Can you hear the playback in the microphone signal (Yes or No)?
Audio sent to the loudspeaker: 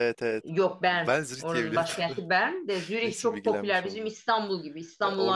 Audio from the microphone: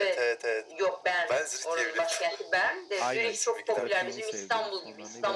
Yes